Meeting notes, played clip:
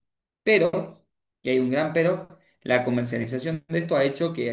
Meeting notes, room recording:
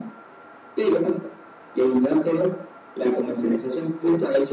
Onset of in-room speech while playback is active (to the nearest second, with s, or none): none